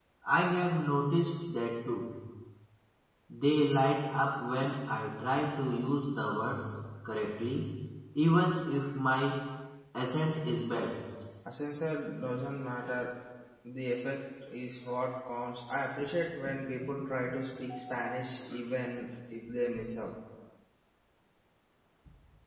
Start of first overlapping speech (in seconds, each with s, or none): none